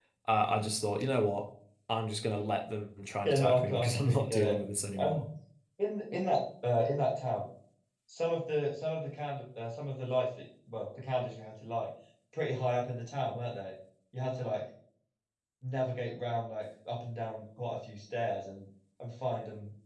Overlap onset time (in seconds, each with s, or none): 3.2 s